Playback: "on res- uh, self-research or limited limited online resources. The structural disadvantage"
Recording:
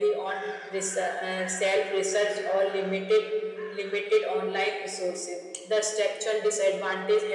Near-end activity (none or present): none